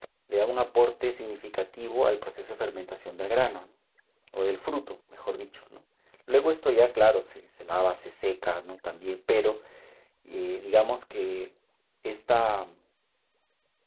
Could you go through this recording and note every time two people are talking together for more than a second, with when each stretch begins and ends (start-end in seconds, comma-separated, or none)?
none